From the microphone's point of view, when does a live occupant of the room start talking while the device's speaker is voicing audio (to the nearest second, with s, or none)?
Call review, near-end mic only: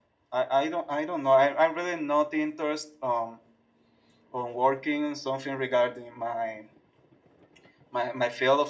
none